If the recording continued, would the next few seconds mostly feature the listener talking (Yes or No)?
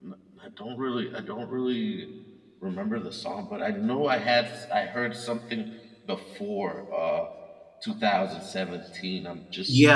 Yes